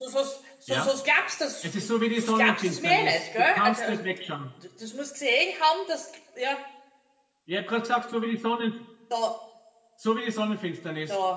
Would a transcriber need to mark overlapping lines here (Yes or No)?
Yes